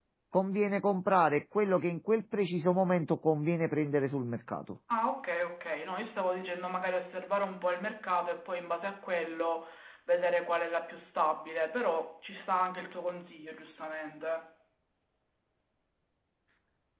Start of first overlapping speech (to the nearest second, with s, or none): none